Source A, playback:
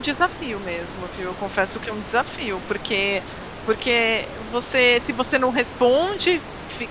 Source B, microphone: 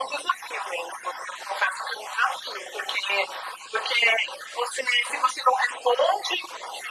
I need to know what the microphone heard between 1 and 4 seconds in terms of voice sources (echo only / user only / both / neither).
echo only